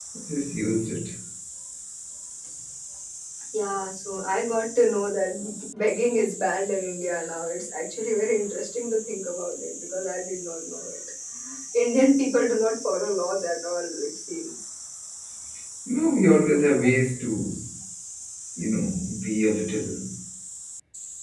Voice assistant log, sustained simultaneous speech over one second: none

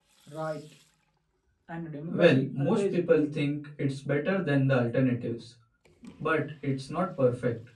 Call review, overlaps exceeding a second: present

